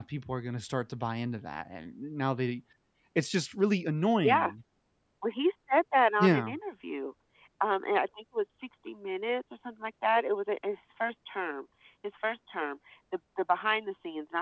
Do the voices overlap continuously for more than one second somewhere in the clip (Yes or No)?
No